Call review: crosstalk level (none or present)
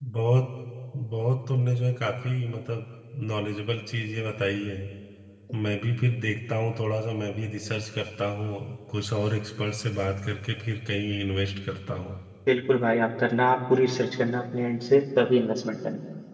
none